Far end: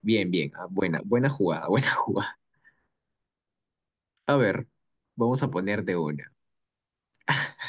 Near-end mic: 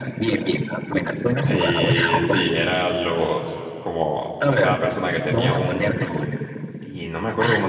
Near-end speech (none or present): present